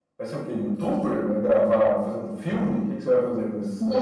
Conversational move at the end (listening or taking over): taking over